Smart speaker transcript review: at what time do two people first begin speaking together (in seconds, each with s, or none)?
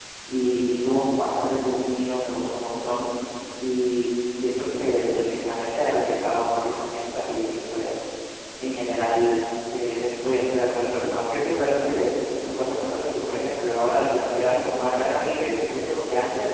14.4 s